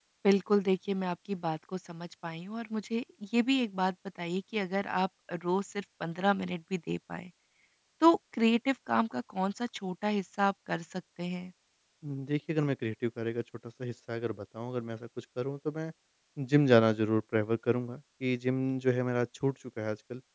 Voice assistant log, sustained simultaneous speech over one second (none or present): none